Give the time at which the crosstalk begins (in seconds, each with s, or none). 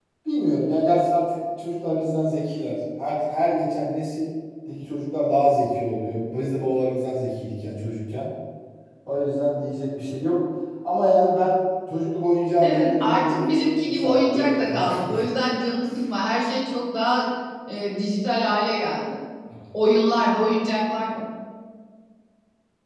12.6 s